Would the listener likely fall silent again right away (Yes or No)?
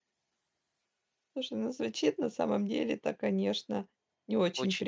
Yes